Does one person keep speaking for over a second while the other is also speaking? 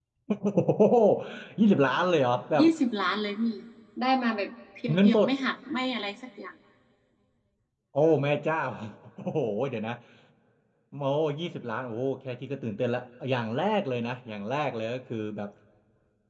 No

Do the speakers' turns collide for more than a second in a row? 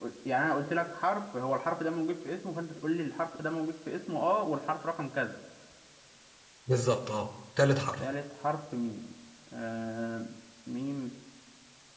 No

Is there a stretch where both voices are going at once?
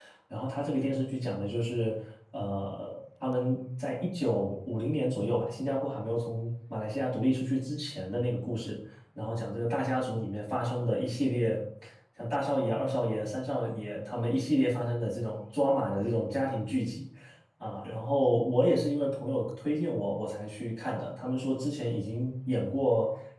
No

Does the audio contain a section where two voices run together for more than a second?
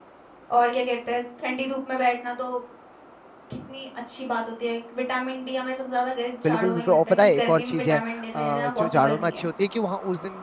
Yes, from 6.4 s

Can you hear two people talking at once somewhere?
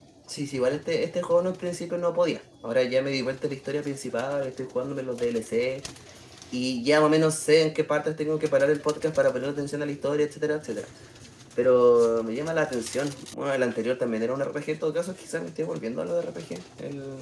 No

